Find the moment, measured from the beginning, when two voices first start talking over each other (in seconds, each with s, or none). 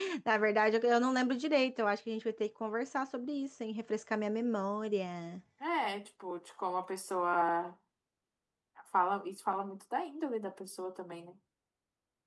none